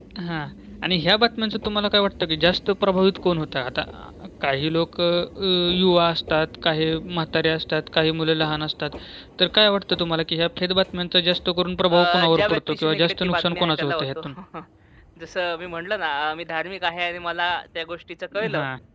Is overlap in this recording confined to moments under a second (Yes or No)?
No